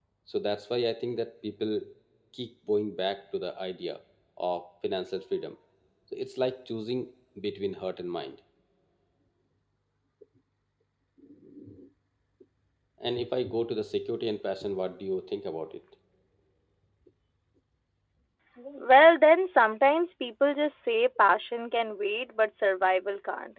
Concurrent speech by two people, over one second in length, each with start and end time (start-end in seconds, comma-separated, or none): none